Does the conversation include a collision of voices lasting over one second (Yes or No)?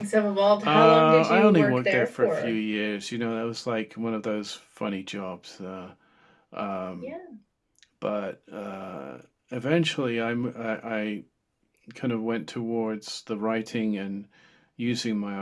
Yes